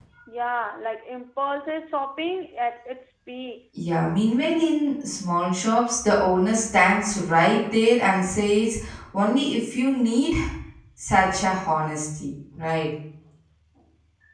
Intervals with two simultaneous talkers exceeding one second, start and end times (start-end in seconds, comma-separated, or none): none